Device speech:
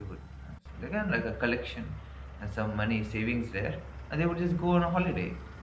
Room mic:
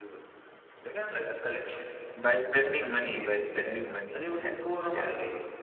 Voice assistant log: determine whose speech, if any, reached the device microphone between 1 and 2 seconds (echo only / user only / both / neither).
echo only